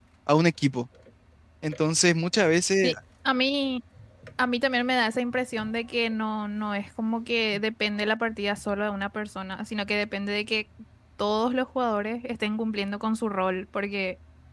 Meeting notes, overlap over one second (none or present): none